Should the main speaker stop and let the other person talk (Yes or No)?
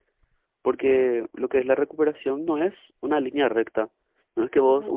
No